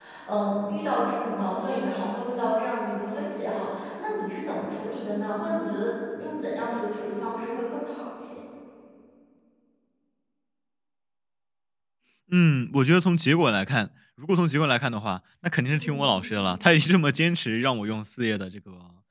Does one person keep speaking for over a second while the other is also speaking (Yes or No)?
No